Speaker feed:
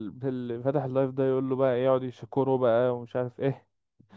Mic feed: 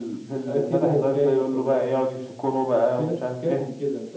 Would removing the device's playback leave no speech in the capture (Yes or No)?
No